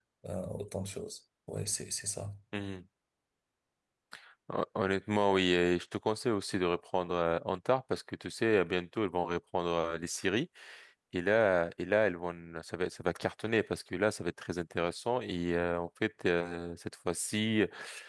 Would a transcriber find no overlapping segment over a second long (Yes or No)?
Yes